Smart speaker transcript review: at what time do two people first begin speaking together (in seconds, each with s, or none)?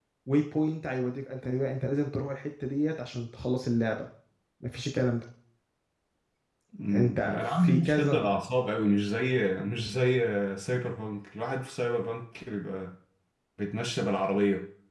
6.9 s